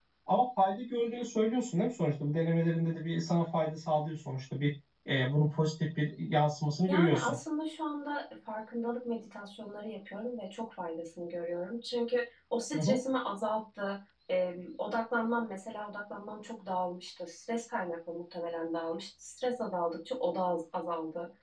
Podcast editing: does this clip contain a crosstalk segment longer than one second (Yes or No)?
No